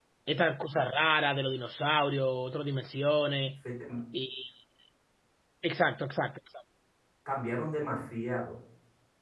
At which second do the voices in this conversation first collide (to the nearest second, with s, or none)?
none